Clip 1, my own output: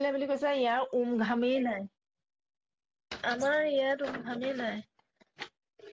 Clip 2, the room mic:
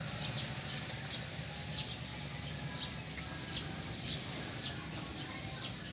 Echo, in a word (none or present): none